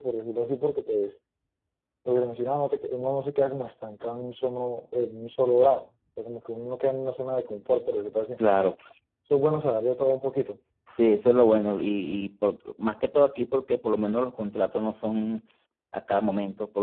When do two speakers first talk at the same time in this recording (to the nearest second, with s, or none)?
none